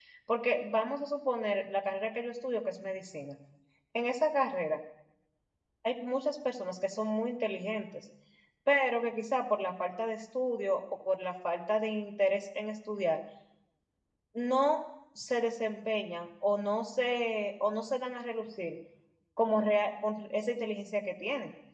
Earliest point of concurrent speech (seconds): none

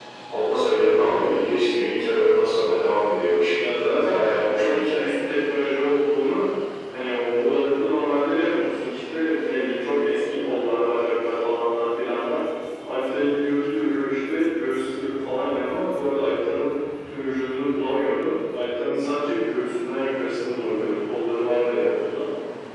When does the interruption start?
3.6 s

